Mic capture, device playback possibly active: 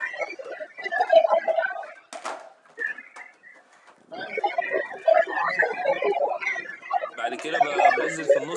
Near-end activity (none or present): present